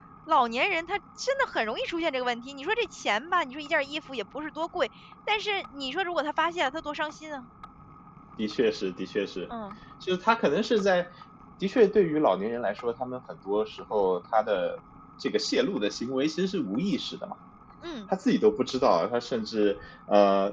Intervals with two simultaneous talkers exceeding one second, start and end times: none

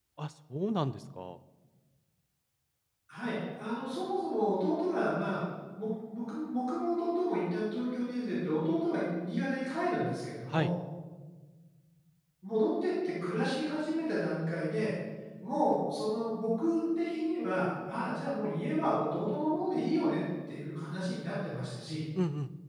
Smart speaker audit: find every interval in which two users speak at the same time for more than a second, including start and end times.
none

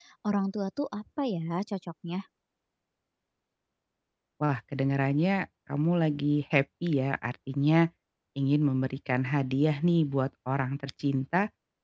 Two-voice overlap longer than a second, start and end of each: none

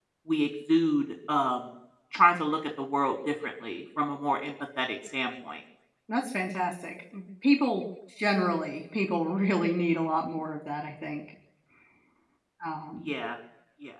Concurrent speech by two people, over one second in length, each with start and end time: none

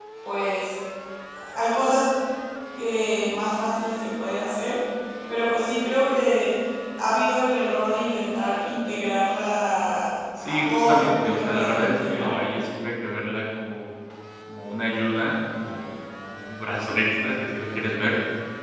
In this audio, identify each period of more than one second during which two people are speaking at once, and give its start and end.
10.4-12.3

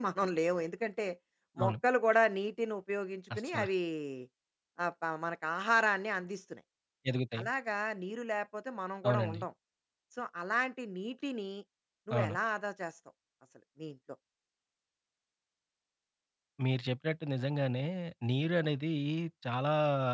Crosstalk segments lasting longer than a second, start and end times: none

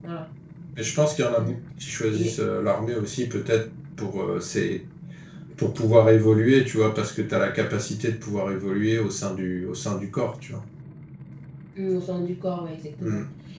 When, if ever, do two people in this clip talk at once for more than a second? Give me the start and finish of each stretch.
none

